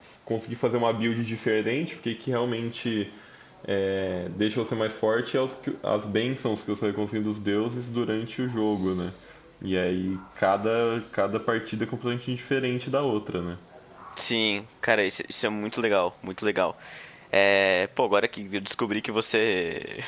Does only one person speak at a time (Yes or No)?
Yes